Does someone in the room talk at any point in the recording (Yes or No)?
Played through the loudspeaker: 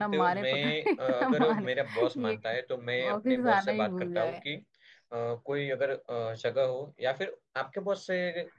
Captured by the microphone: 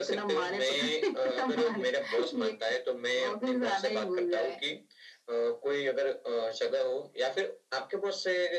No